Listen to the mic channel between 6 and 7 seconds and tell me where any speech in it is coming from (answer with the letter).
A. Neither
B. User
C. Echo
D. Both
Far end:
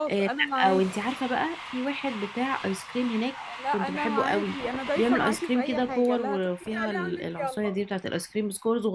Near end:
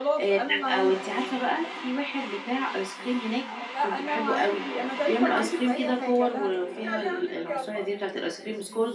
C